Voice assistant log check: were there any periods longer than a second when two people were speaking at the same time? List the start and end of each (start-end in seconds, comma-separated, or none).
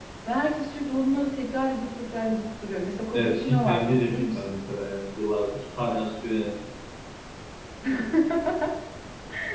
3.1-4.6